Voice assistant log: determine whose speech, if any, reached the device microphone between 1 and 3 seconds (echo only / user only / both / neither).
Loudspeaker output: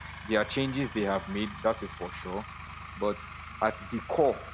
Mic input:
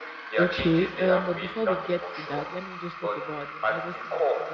both